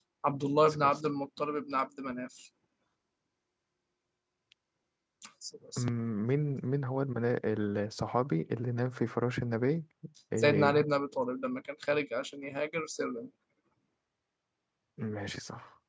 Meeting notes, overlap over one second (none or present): none